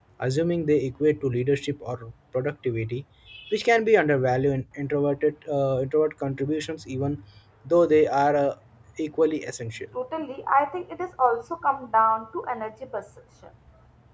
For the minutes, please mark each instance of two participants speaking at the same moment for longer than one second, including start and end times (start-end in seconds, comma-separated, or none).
none